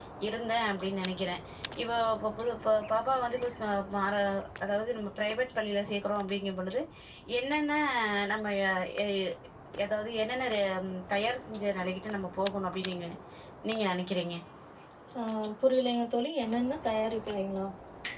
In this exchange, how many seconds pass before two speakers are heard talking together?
none

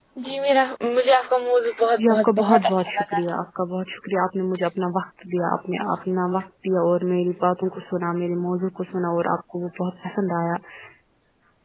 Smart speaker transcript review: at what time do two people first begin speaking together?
2.0 s

